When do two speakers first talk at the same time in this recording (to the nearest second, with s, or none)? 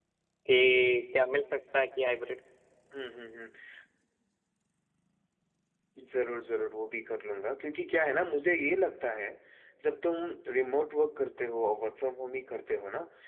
none